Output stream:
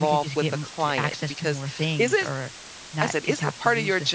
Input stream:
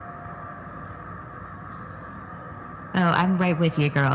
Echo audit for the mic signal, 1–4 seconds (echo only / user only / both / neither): user only